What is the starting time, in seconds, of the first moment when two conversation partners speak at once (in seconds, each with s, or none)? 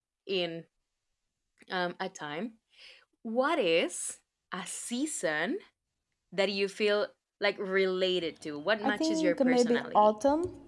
8.8 s